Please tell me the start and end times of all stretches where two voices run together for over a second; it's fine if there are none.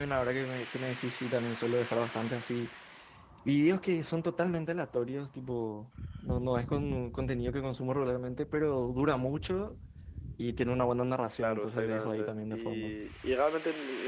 11.4-12.9

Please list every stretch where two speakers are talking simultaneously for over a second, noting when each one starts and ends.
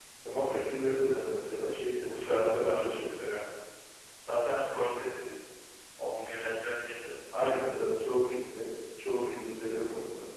2.0-3.2

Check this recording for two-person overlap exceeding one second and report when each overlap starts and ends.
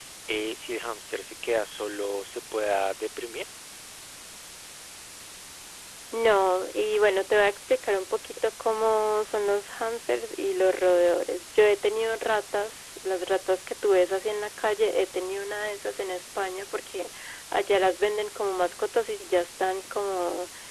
none

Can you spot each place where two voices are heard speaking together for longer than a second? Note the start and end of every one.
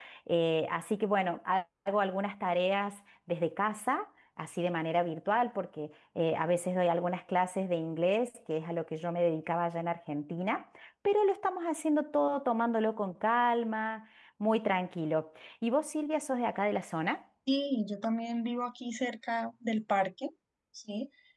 none

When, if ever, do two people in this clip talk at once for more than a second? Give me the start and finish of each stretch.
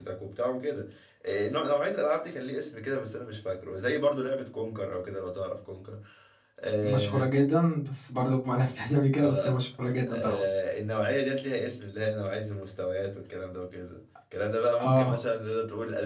none

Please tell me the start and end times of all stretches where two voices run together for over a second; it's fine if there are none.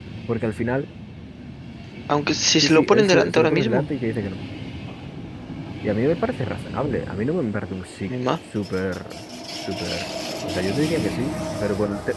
2.6-3.9

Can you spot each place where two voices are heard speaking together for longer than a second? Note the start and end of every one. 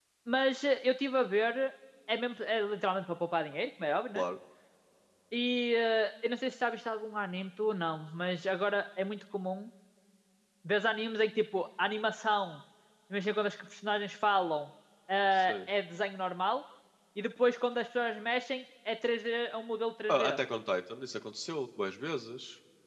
none

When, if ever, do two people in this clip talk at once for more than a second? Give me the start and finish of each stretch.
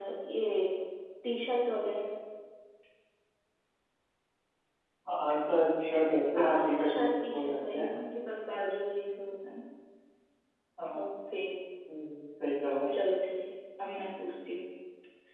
6.4-7.9

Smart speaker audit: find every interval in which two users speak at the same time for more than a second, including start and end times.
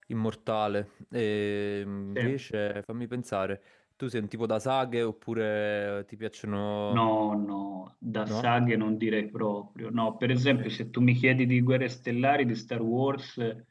none

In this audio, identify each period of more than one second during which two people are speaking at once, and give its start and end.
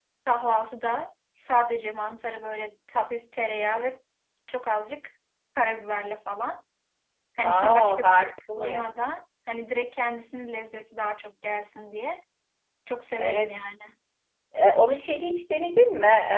7.4-8.9

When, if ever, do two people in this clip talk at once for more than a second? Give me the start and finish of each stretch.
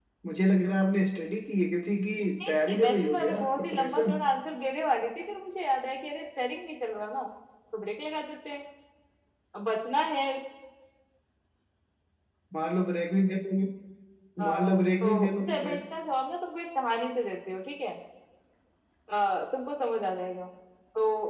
2.5-4.2, 14.4-15.8

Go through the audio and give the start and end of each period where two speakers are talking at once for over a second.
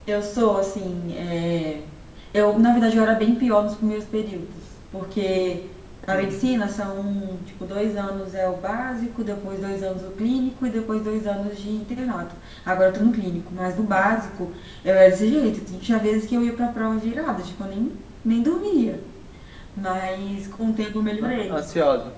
none

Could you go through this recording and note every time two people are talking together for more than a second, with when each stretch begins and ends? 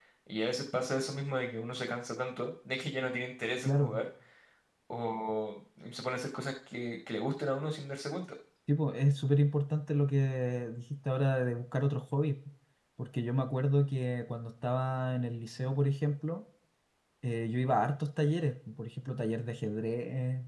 none

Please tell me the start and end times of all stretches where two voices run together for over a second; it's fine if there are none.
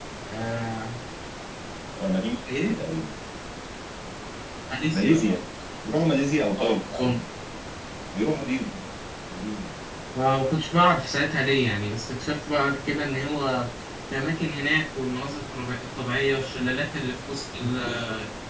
none

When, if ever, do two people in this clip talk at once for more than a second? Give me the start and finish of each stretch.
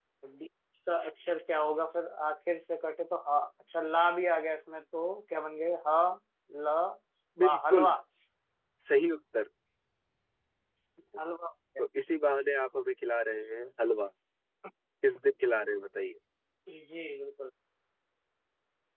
none

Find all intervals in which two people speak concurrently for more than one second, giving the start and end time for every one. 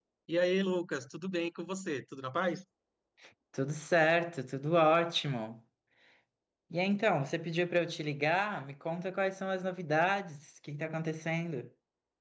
none

